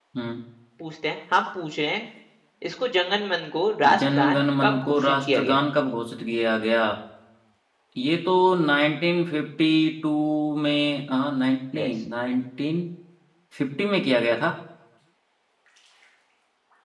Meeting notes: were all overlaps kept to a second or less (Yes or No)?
No